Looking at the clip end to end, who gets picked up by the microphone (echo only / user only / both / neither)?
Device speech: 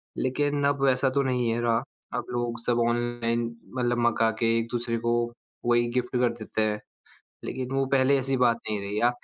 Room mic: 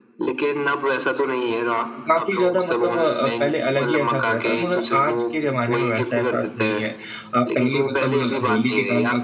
both